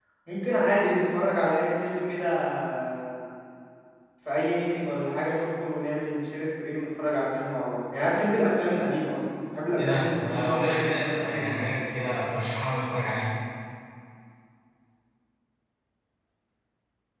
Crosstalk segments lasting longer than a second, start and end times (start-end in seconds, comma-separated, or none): 9.8-11.7